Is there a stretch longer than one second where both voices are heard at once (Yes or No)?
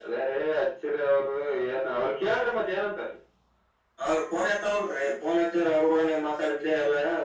No